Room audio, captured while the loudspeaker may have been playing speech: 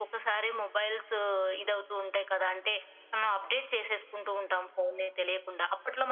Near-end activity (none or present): none